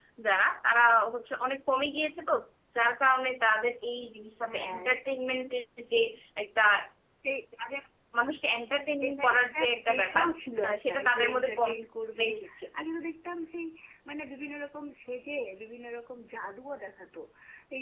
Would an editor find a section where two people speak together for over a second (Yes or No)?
Yes